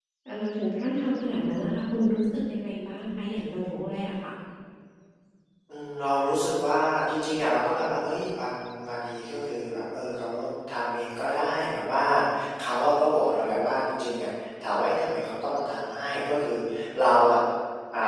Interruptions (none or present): none